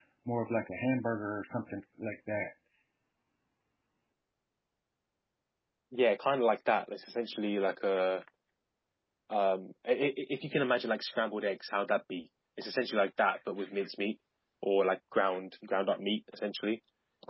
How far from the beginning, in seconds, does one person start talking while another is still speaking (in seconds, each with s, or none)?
none